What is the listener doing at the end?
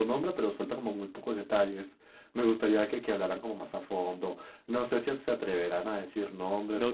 taking over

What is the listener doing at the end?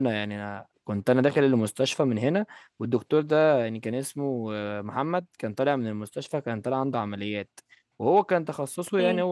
listening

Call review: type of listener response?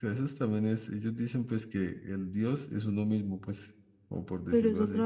taking over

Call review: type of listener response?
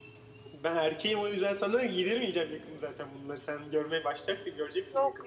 taking over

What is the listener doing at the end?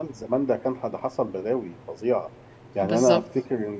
listening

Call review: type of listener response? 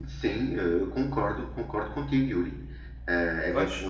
listening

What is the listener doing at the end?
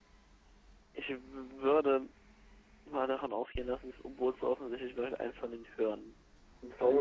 taking over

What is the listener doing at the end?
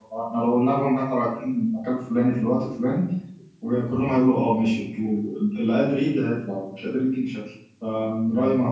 taking over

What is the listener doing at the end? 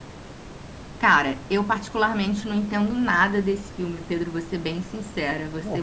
listening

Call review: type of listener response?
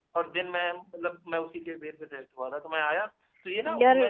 listening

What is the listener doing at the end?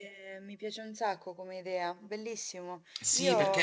taking over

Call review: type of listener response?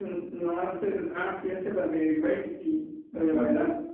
taking over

